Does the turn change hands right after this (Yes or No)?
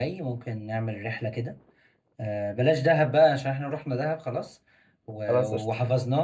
No